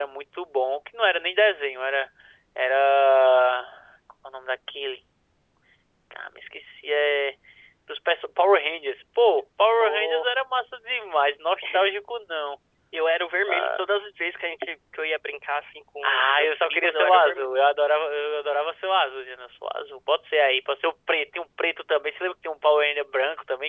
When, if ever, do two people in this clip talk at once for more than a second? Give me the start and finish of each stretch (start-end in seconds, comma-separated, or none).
16.0-17.5